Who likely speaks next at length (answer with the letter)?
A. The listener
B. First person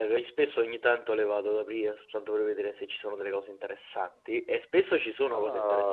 B